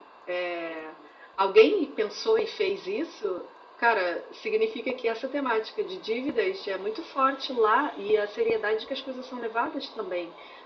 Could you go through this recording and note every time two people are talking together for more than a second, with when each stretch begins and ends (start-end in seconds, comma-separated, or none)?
none